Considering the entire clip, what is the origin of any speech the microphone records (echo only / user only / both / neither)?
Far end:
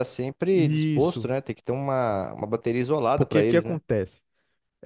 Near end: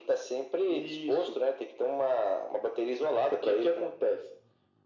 echo only